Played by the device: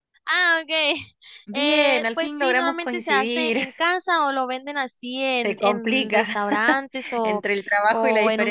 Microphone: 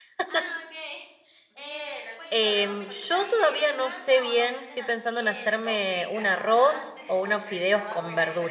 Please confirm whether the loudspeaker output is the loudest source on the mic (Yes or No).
No